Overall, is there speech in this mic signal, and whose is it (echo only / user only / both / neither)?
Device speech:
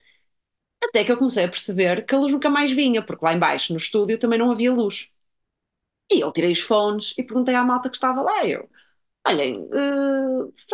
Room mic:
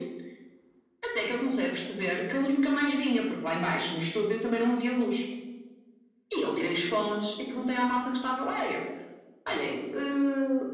echo only